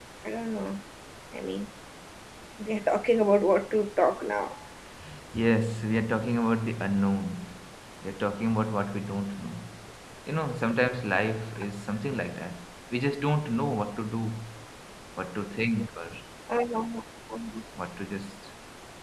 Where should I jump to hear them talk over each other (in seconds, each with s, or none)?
none